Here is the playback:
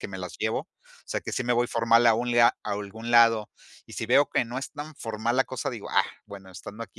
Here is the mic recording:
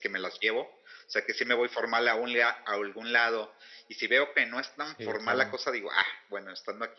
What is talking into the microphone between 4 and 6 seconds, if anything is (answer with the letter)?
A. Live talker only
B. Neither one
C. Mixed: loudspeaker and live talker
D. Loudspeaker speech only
C